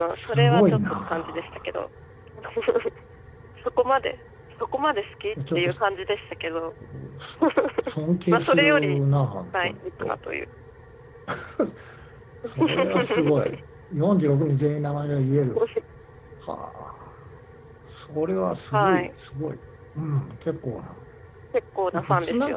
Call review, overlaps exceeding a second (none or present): present